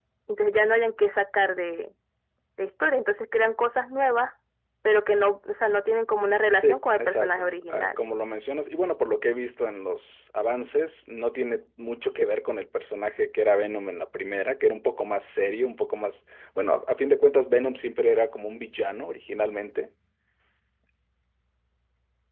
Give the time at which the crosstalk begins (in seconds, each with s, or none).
6.6 s